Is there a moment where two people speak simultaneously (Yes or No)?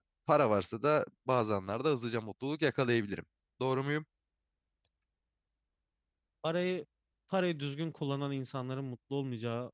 No